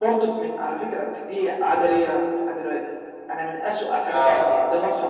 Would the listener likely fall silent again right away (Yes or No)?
Yes